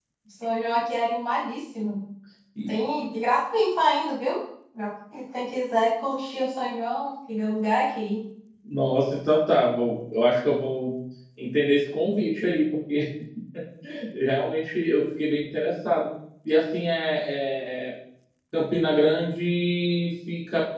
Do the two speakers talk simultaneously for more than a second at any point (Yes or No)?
No